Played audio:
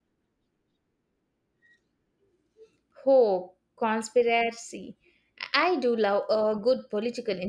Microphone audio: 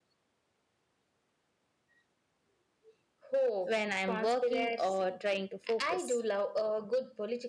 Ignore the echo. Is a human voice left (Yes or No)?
Yes